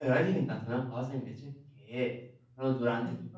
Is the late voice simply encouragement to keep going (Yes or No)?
Yes